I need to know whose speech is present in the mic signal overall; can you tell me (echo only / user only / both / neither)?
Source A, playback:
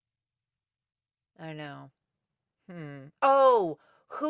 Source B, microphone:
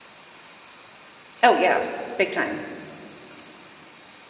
user only